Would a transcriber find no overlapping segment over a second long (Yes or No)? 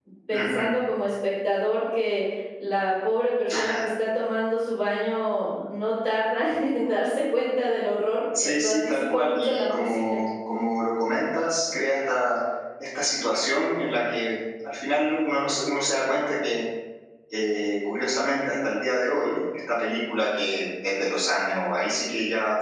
No